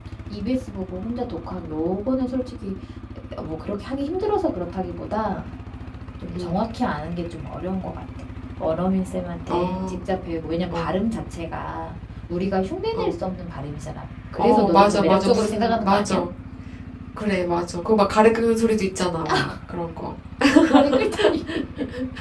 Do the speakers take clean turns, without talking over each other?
No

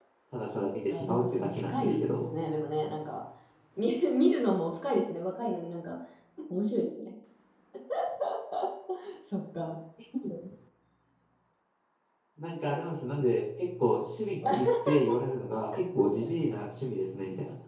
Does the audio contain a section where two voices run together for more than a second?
Yes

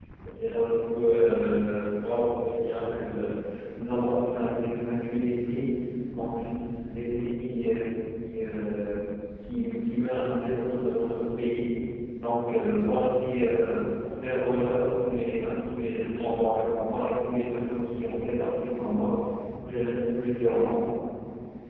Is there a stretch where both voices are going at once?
No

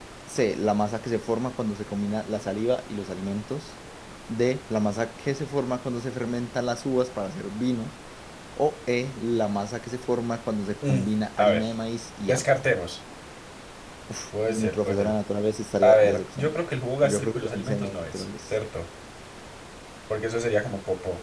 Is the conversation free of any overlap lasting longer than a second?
No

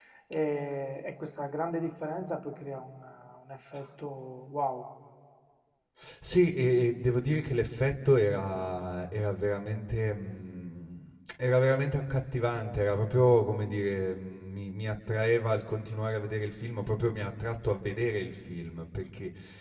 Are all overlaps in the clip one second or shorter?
Yes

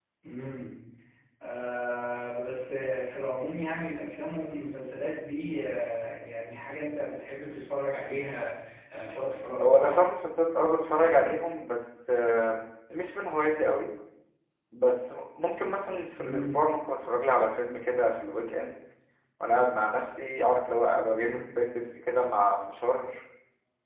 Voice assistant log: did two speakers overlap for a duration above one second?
No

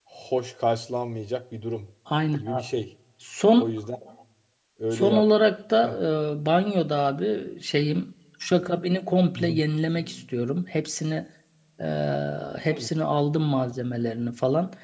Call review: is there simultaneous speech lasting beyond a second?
No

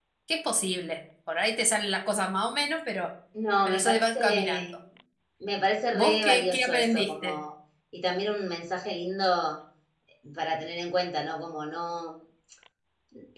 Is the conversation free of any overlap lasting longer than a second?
No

